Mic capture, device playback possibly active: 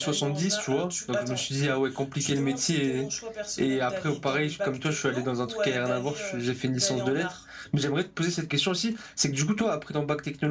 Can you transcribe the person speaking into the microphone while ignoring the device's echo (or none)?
none